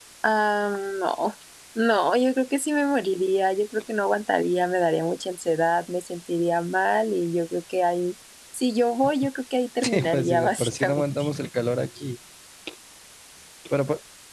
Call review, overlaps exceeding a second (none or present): present